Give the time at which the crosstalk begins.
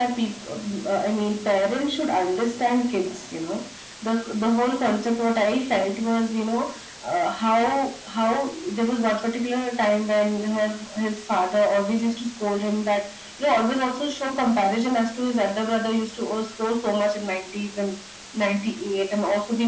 none

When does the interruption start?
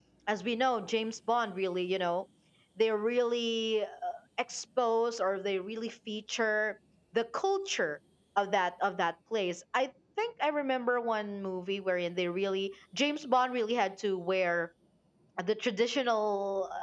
none

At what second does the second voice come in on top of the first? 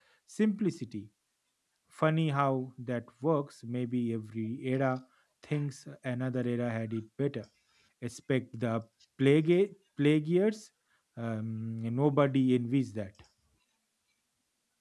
none

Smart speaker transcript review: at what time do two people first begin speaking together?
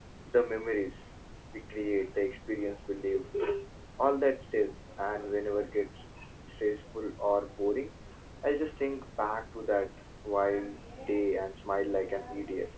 none

